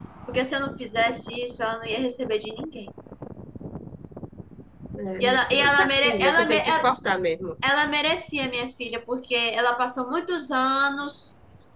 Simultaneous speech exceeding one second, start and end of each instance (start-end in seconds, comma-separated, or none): 5.2-6.8